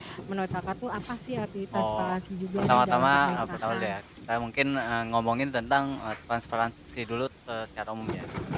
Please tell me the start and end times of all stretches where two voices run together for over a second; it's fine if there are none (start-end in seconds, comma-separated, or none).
2.6-4.0